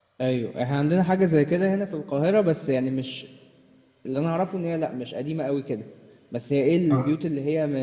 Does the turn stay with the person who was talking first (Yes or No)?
Yes